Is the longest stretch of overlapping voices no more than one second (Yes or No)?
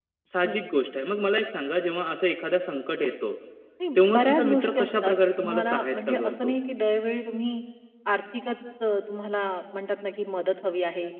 No